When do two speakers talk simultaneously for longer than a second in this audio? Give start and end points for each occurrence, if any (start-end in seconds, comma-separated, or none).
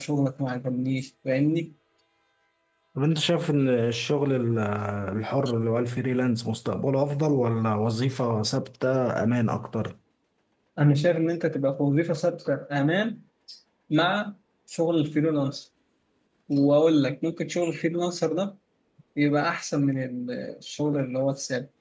none